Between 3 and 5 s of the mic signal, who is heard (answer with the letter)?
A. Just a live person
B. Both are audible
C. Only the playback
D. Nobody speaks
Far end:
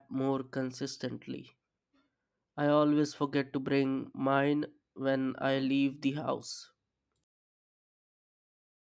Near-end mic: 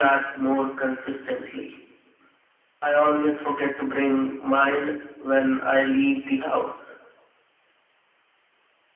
C